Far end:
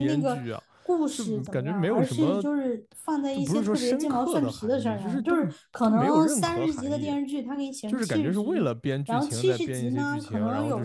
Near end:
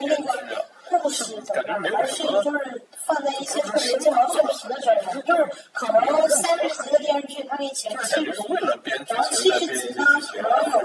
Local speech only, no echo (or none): none